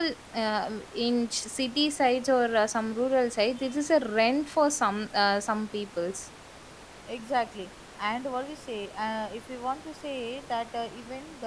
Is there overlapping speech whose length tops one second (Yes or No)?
No